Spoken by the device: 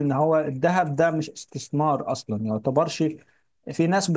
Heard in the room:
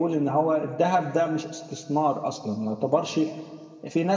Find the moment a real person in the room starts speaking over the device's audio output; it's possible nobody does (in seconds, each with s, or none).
none